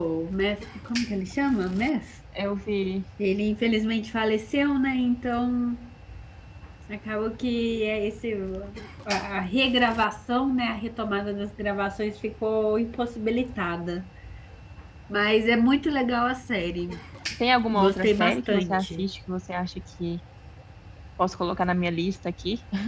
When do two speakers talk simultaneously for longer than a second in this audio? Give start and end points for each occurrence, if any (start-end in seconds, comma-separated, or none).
17.7-19.0